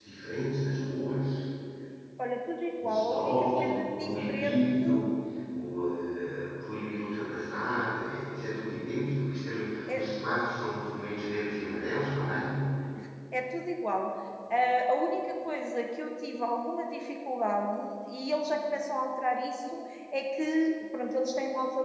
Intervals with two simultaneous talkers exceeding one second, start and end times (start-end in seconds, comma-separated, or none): 2.8-4.6